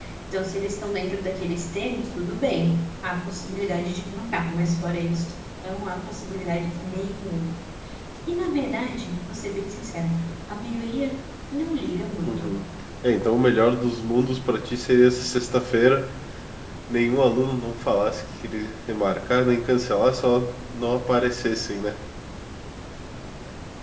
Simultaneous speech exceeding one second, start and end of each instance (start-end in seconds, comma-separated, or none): none